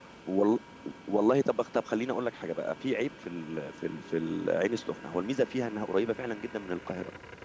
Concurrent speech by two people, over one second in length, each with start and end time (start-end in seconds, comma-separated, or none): none